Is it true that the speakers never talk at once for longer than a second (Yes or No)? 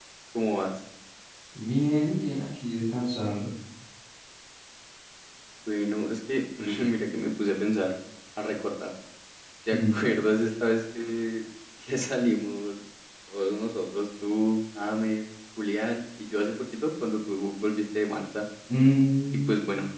Yes